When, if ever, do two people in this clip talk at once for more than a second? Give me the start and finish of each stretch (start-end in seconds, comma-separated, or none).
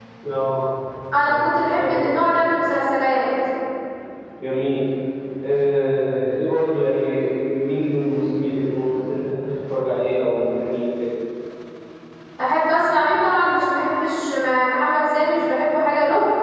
1.3-2.5